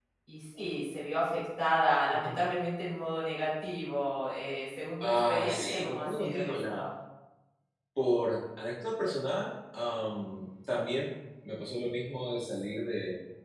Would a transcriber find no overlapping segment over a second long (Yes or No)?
No